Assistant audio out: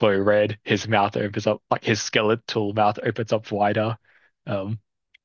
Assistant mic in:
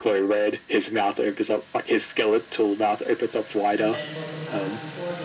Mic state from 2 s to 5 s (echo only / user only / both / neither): both